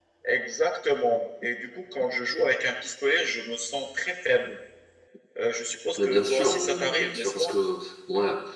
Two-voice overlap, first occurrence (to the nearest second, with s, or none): 6 s